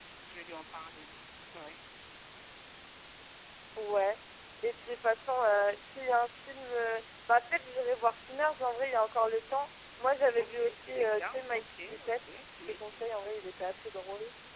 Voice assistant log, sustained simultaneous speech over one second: present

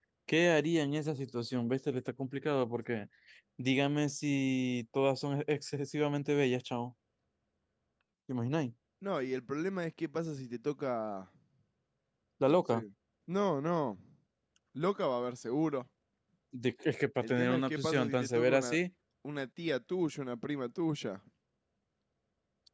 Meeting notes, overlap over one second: present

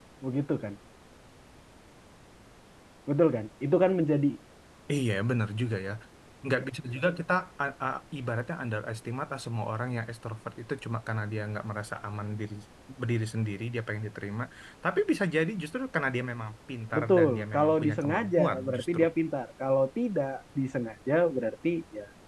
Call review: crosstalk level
present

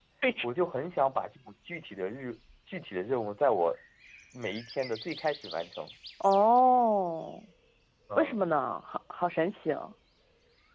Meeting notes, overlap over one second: none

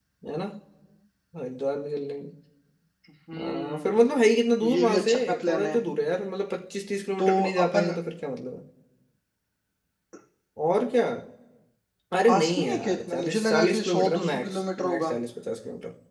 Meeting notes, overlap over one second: present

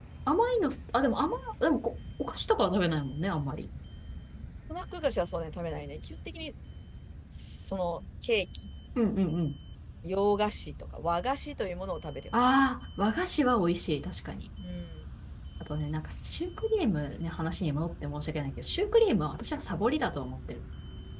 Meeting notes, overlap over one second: none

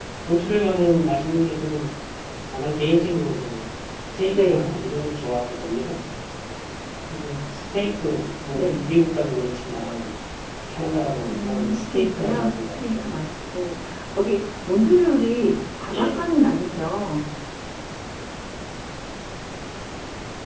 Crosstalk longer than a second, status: present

